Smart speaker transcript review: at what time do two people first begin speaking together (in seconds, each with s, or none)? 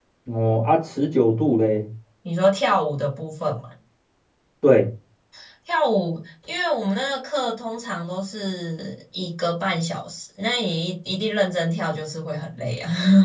none